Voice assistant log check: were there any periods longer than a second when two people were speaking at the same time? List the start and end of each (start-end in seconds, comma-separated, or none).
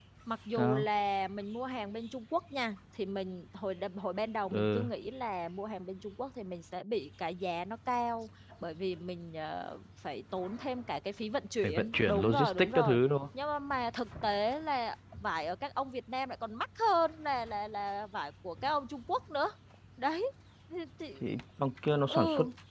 11.6-13.0